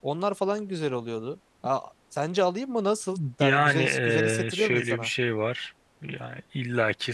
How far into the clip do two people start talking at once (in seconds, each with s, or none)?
3.4 s